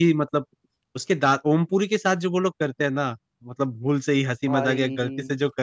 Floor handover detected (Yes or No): No